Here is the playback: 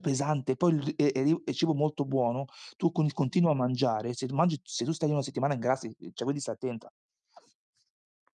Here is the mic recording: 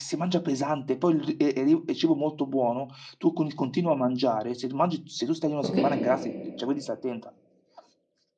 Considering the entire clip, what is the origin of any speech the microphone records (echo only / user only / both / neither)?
both